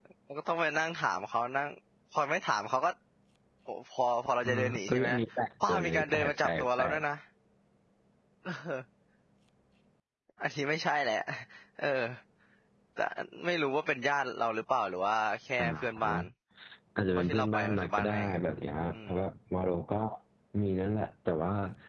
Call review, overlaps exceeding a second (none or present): present